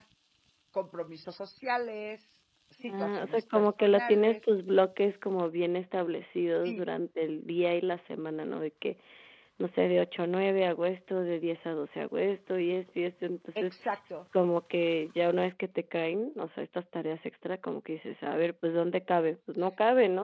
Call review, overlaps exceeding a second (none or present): present